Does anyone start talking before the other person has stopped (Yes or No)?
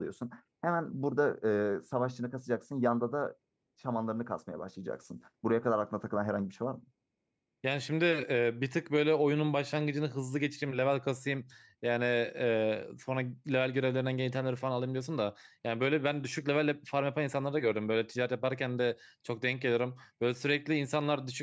No